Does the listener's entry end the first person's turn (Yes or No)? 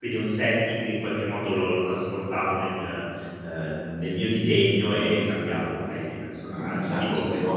Yes